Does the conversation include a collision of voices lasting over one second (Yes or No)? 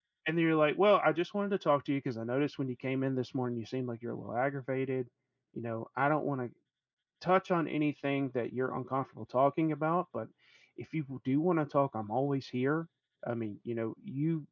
No